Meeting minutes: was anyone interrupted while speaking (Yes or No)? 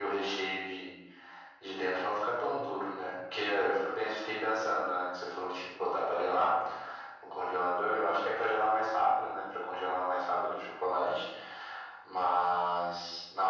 No